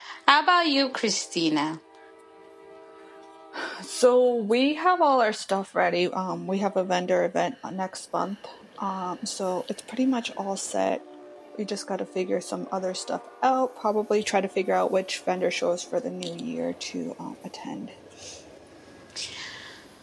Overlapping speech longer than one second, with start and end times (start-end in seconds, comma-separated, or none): none